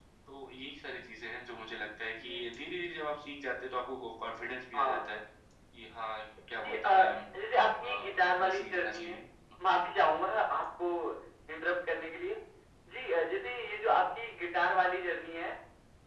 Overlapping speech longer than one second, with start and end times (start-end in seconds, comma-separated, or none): 7.8-9.2